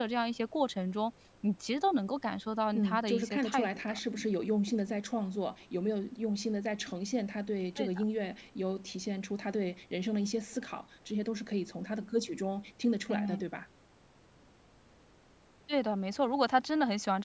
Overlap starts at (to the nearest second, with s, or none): 3 s